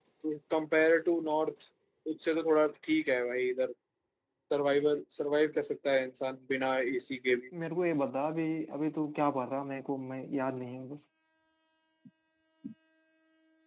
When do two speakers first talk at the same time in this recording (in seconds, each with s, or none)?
none